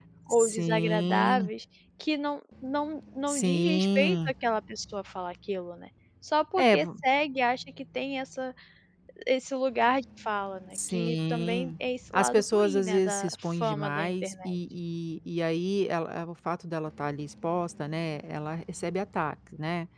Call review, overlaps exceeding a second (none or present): present